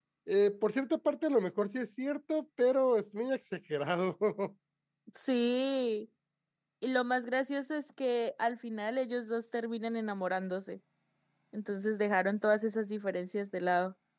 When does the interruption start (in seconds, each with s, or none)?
none